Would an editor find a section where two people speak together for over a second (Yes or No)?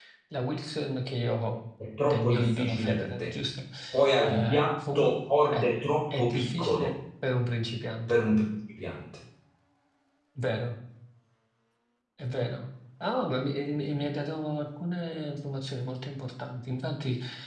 Yes